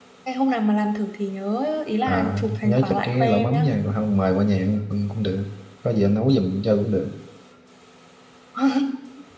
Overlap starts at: 2.1 s

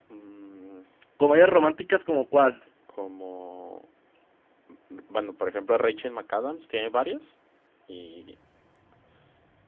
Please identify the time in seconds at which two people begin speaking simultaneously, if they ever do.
none

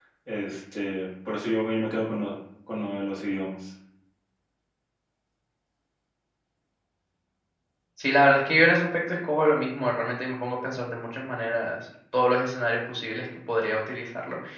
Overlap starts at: none

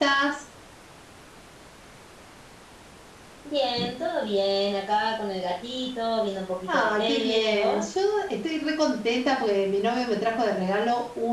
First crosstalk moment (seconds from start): 6.7 s

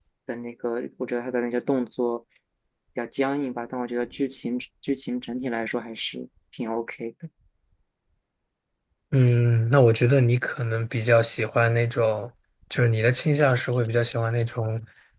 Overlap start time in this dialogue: none

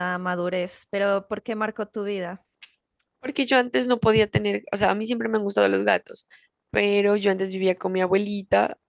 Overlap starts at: none

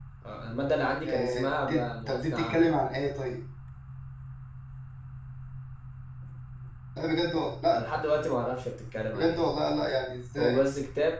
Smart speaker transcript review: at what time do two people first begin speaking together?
1.0 s

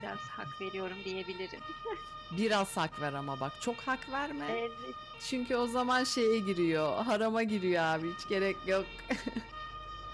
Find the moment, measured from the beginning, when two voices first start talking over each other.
none

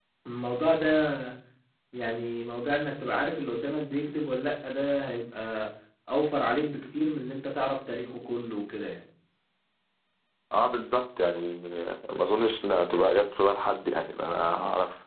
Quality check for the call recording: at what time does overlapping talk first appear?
none

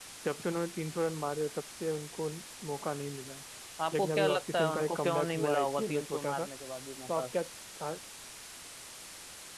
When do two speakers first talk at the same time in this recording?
3.9 s

